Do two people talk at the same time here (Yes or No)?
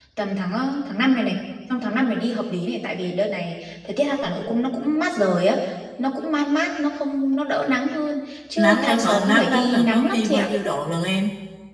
Yes